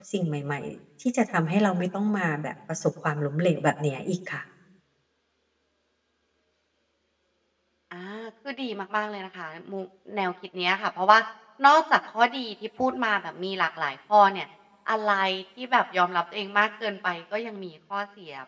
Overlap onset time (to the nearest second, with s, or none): none